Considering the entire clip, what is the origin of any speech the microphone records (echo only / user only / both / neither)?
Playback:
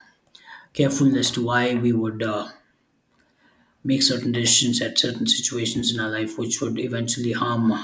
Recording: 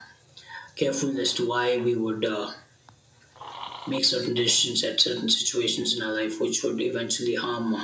echo only